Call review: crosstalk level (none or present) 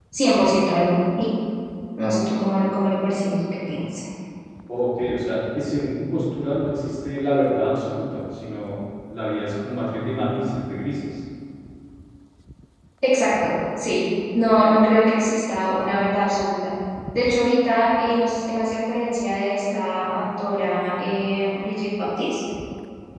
none